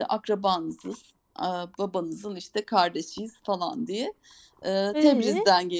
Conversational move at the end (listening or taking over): listening